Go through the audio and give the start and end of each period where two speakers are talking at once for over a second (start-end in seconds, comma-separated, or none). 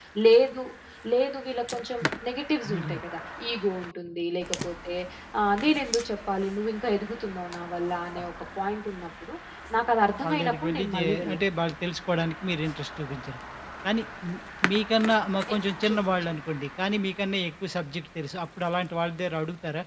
10.2-11.5